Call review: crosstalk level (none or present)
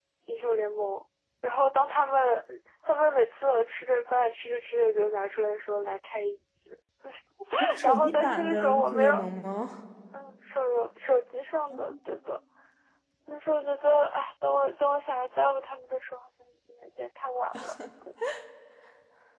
present